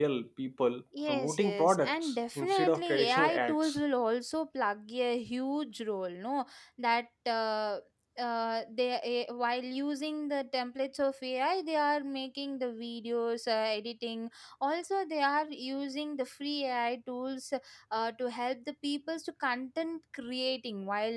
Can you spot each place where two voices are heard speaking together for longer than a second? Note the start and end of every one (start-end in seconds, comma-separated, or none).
1.1-3.8